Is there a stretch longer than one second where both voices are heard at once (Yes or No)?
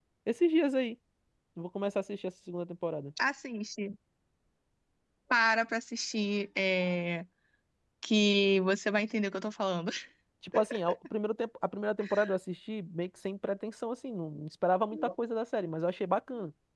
No